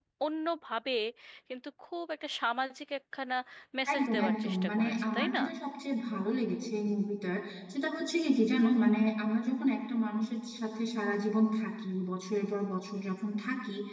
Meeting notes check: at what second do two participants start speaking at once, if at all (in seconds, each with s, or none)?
3.9 s